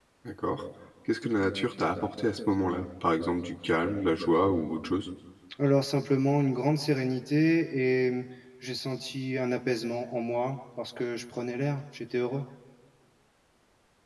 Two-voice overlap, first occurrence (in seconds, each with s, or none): none